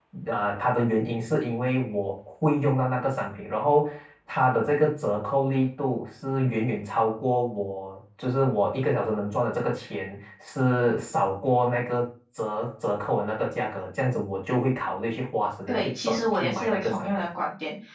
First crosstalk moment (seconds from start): 15.7 s

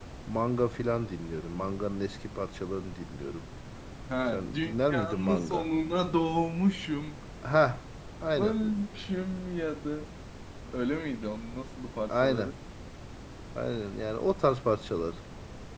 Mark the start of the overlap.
4.3 s

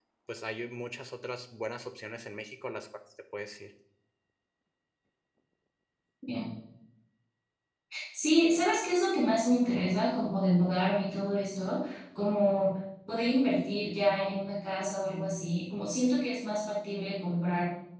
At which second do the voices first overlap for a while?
none

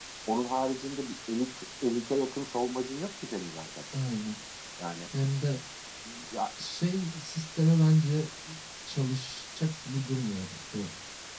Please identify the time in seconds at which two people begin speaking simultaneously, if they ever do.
none

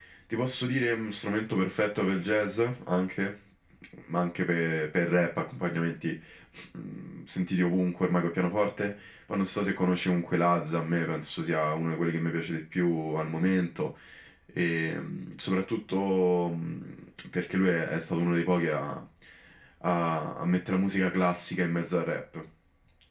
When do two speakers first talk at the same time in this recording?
none

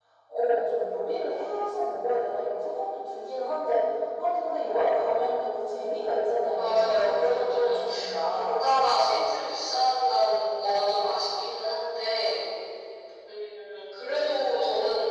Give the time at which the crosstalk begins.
6.5 s

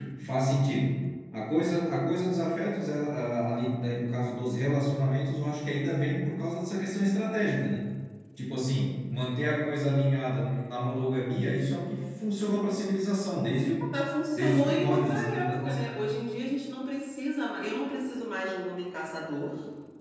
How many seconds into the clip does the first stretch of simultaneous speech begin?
14.3 s

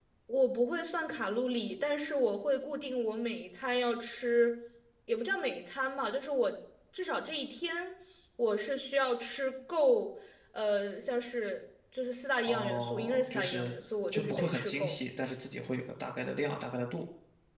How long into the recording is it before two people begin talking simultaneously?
12.4 s

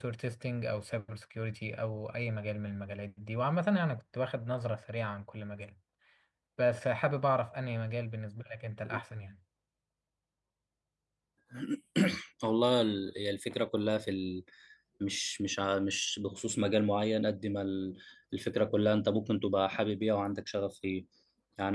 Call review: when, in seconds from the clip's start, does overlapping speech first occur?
none

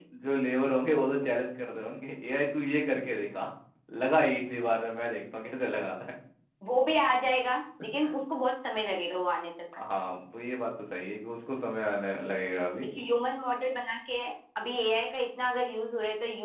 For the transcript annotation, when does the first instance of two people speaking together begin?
none

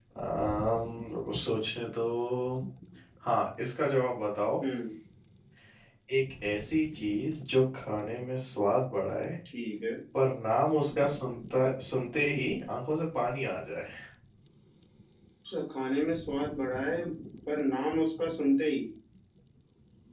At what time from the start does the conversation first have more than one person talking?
none

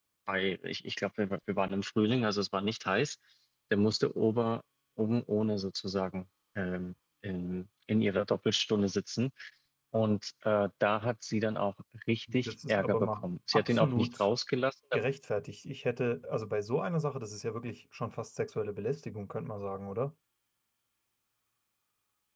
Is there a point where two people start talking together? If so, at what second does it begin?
12.5 s

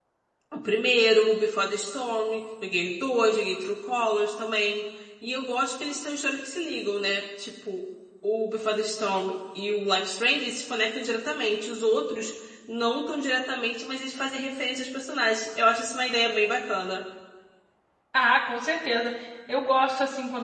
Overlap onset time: none

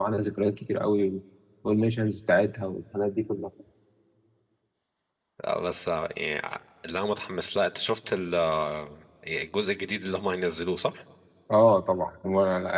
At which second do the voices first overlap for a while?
none

